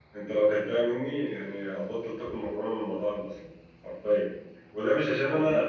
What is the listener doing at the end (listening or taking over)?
listening